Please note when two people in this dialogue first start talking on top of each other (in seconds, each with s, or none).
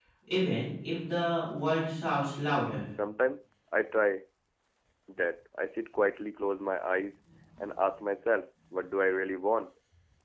none